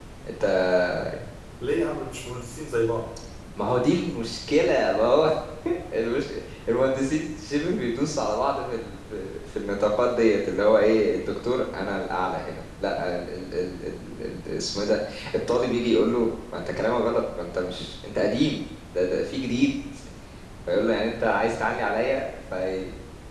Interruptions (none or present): none